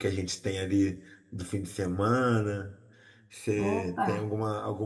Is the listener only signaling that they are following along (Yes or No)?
Yes